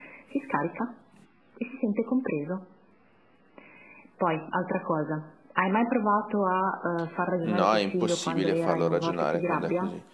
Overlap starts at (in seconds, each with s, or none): 7.4 s